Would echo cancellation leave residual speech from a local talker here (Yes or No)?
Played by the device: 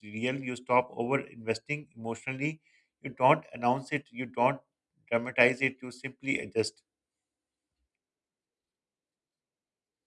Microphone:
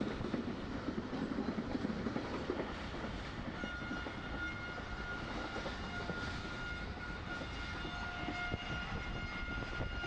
No